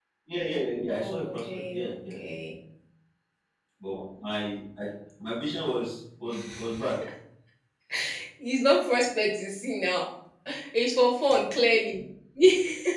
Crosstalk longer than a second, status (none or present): present